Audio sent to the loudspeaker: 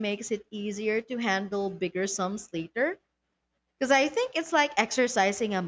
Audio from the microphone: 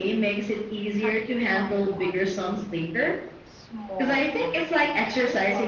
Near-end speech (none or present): present